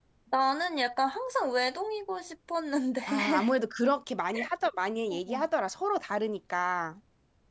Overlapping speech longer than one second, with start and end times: none

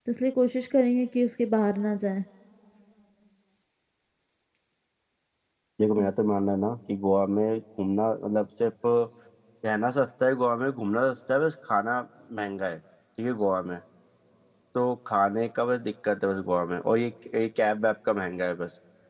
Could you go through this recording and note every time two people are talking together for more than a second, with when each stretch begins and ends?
none

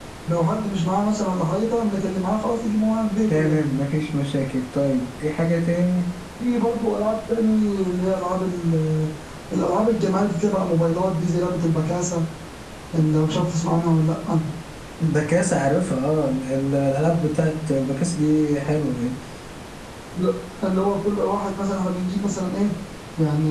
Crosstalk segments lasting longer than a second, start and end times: none

